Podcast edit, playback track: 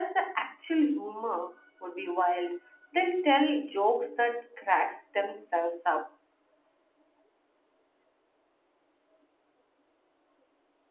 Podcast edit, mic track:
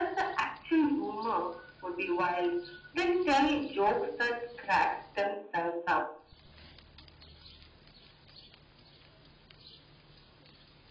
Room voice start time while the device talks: none

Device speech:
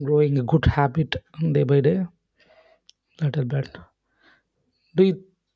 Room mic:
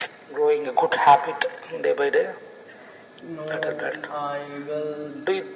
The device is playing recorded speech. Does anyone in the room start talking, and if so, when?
3.2 s

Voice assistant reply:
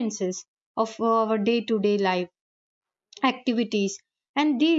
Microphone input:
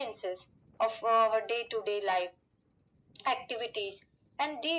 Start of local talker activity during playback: none

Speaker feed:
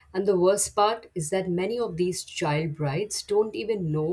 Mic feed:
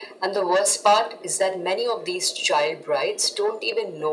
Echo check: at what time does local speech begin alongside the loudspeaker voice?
none

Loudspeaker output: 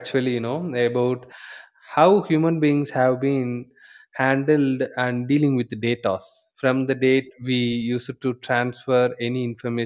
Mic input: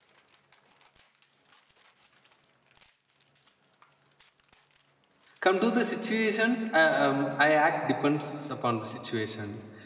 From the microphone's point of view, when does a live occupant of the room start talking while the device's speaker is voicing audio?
5.4 s

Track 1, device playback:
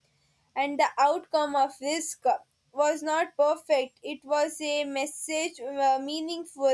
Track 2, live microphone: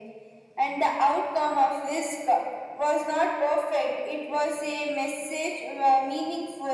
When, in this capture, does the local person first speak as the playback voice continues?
none

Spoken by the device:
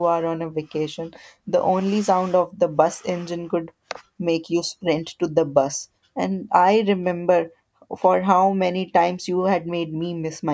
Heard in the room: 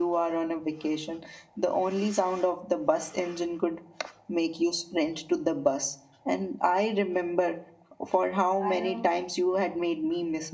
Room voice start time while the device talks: 8.6 s

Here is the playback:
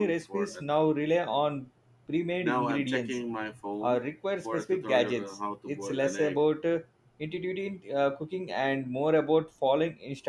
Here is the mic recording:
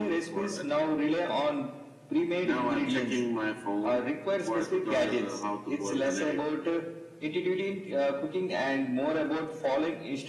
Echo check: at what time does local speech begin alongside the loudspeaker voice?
none

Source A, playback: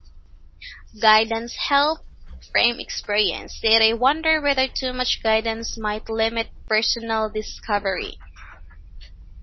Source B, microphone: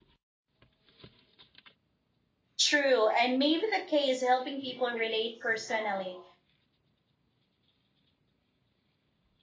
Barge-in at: 2.6 s

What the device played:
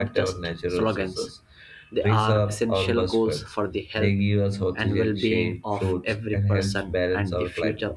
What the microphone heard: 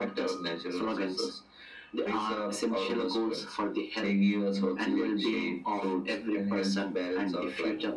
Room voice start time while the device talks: none

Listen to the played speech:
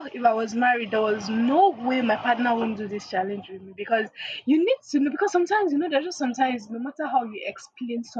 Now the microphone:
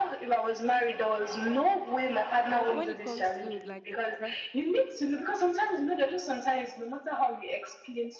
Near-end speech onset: 2.5 s

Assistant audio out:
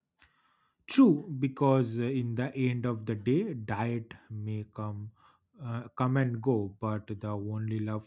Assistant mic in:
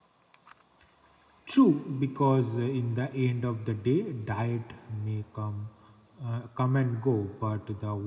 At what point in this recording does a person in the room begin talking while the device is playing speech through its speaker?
none

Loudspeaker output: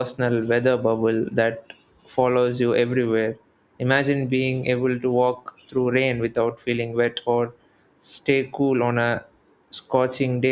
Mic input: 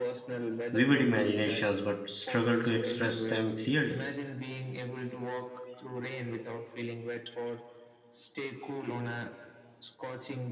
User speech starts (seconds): 0.7 s

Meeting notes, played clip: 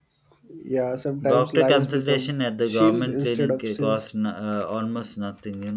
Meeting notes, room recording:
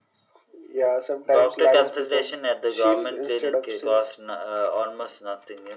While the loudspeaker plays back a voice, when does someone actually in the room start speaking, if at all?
none

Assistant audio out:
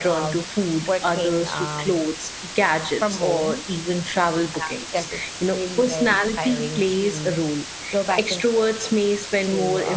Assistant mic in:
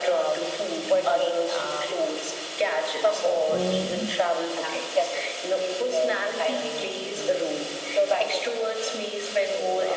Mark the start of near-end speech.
3.5 s

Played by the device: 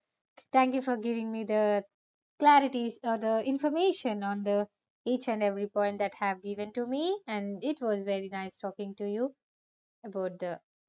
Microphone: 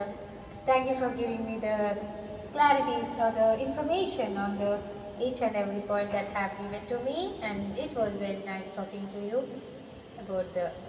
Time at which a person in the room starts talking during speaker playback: none

